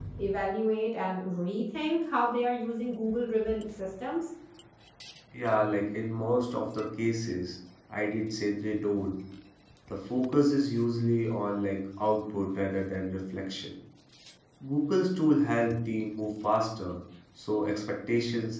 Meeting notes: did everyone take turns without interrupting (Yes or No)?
Yes